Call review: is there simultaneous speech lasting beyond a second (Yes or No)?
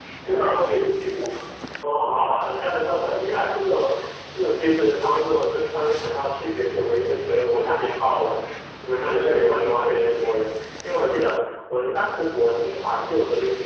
No